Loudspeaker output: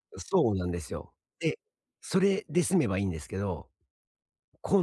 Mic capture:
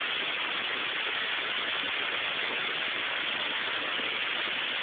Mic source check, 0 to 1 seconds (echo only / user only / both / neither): neither